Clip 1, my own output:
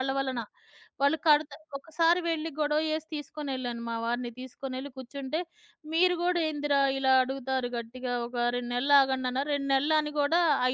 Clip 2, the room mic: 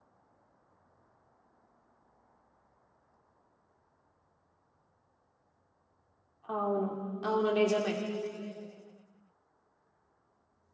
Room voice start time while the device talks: 6.6 s

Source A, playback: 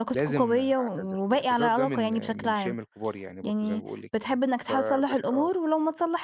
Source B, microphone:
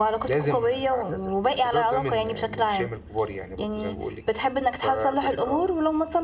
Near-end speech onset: none

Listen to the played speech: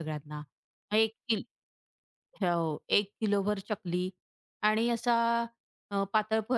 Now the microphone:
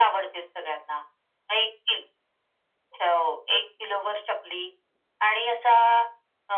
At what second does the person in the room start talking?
none

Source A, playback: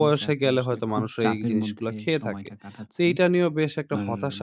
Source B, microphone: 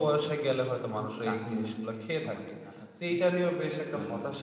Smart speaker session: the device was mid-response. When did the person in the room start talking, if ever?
none

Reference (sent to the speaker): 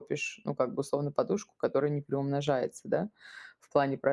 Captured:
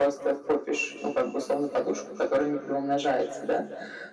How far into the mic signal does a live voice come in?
none

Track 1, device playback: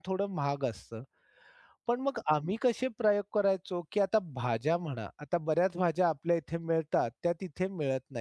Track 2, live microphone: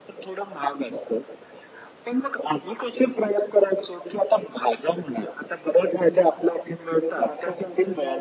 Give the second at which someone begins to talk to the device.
7.2 s

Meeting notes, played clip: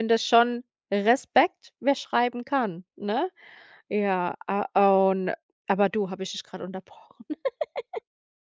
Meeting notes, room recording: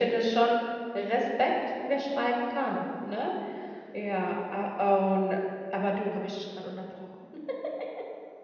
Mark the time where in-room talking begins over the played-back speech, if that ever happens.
none

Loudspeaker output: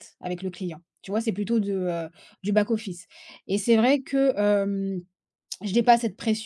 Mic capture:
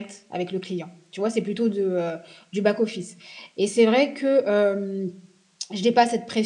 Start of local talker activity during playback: none

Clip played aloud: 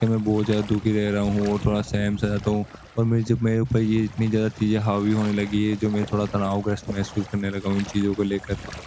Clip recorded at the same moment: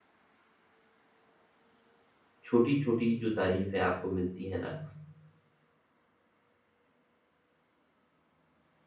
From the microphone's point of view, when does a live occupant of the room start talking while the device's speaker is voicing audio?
2.4 s

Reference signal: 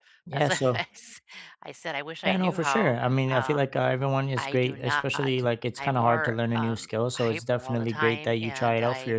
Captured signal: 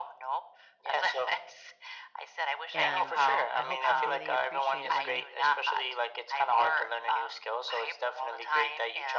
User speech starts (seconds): 2.7 s

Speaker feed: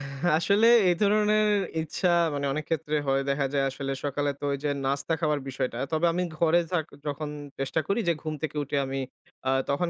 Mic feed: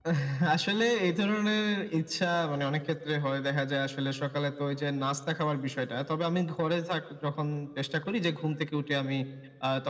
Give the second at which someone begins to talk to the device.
none

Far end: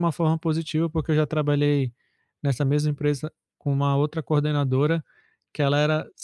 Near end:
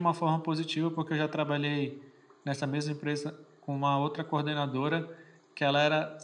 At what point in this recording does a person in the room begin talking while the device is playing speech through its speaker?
none

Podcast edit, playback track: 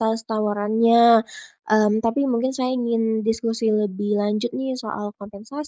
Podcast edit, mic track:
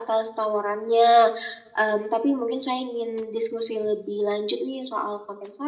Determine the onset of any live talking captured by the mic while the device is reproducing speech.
none

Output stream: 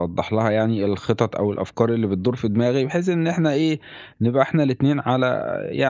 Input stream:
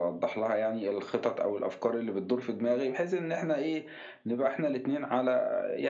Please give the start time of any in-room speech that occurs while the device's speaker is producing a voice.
none

